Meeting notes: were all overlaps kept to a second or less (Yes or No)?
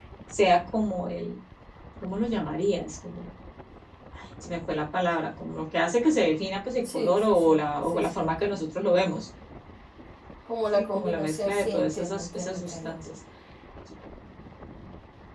No